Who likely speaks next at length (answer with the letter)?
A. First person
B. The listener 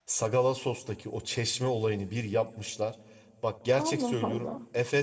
A